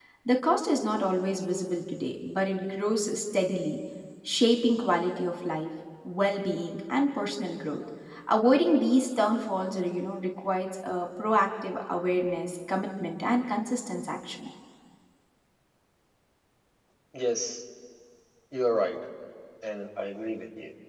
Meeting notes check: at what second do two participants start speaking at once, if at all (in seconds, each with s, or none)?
none